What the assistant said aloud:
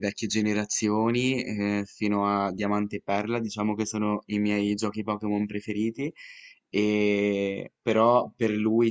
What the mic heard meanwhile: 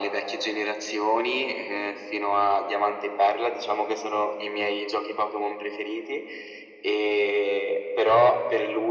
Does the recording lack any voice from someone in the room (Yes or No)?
Yes